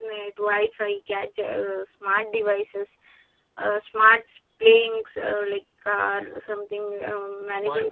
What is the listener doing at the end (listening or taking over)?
taking over